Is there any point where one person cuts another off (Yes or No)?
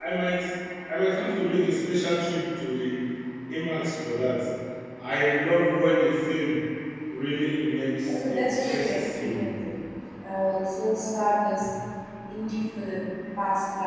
Yes